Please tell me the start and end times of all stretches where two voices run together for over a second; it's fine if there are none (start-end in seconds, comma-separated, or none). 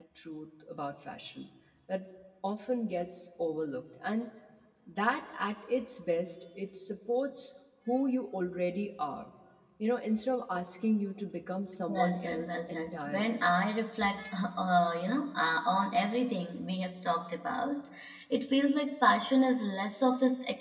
11.9-13.4